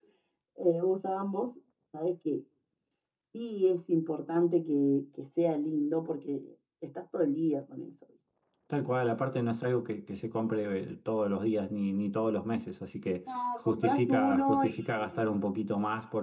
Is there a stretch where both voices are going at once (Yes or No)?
Yes